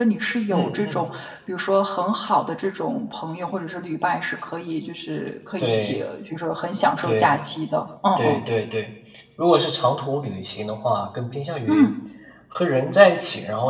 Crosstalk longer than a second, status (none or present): none